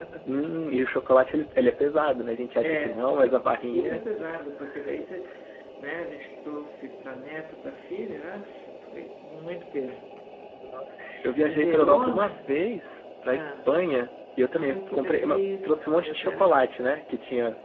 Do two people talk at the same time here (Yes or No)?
Yes